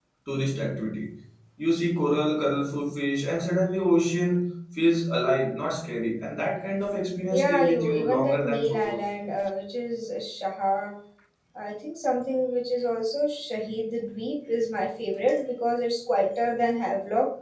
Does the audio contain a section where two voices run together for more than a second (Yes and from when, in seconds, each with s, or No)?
Yes, from 7.3 s